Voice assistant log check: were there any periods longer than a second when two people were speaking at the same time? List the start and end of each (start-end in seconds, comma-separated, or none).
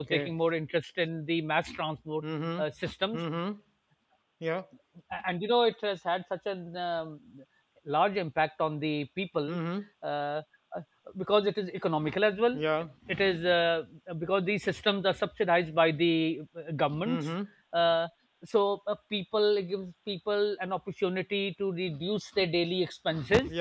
none